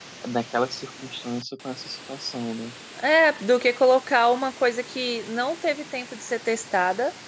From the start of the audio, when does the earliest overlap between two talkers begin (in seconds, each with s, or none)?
none